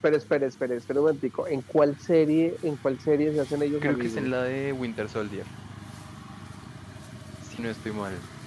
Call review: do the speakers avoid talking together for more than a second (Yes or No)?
Yes